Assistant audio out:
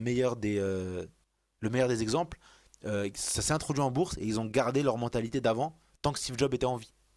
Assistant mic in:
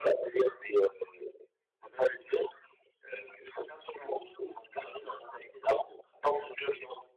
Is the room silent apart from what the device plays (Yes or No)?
Yes